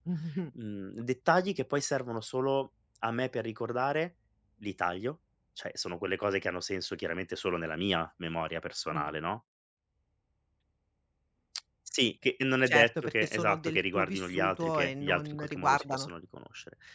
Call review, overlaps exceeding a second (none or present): present